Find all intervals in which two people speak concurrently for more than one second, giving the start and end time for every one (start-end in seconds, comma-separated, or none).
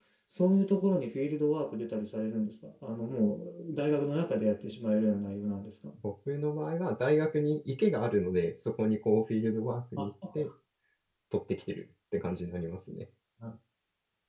none